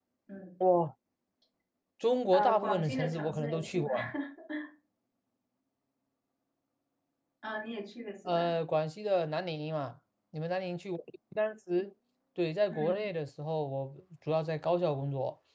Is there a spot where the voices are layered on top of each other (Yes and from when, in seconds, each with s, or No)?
Yes, from 2.3 s